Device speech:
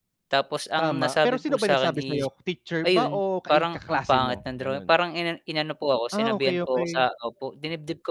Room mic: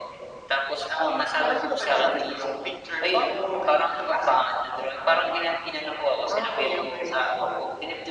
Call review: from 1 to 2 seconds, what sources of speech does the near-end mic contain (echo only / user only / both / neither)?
echo only